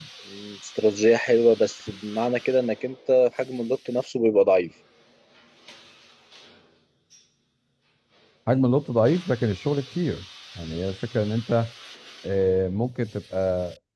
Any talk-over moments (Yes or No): No